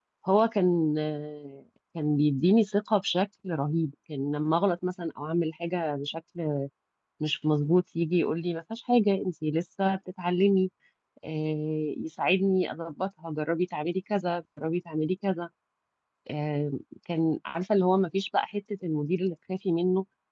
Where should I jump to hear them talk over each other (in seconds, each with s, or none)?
none